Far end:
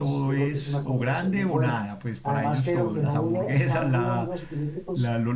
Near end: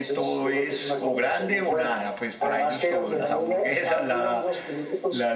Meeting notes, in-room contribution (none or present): none